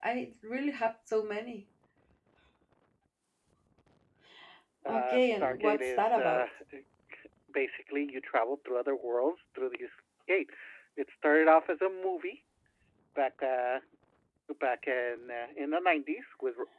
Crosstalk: present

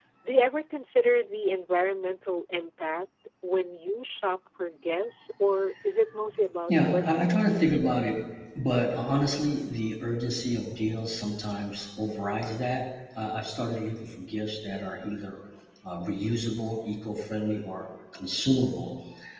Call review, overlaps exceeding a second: present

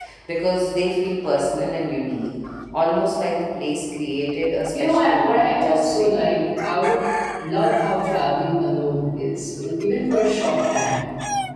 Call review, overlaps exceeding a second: present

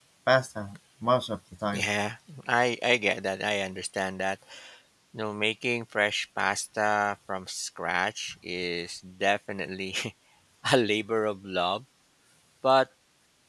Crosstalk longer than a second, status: none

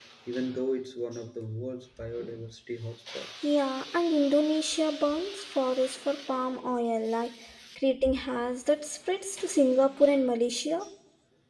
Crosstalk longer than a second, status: none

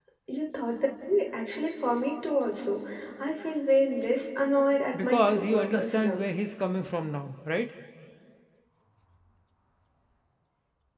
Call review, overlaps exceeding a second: present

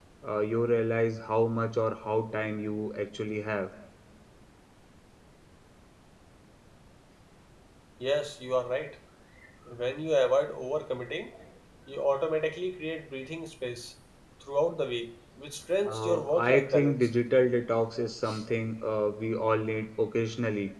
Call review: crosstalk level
present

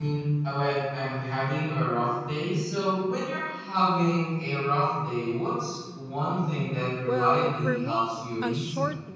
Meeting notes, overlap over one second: present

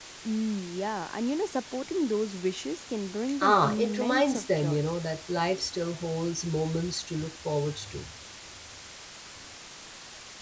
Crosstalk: present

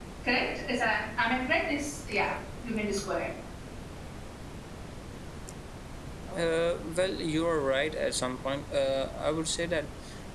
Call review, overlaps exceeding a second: none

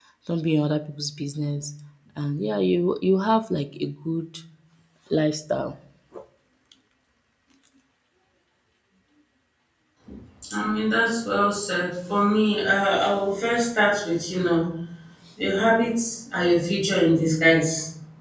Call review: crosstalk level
none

